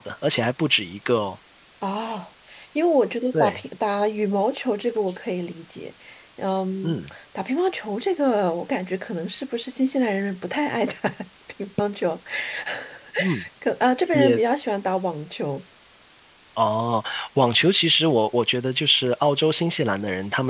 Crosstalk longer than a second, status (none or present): none